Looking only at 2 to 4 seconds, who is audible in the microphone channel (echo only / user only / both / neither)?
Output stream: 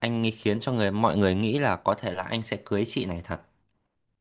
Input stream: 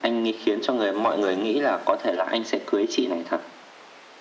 echo only